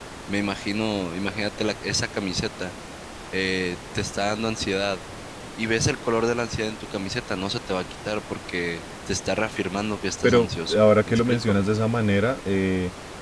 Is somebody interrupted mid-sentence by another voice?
Yes, from 10.2 s

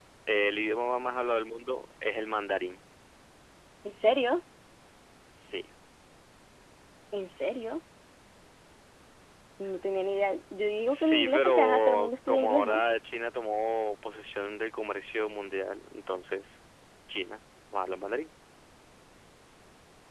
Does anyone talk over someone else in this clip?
Yes, from 10.9 s

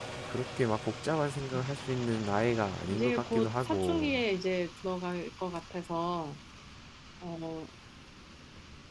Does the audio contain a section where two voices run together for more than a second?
Yes, from 2.9 s

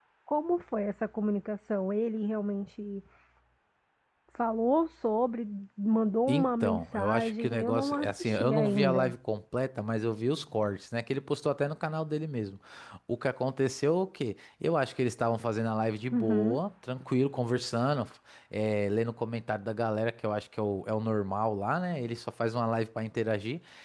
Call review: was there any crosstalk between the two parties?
Yes, from 6.3 s

